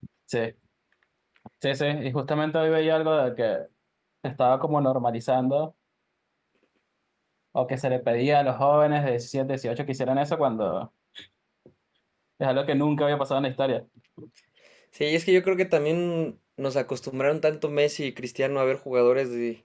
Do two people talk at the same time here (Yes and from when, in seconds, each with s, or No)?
No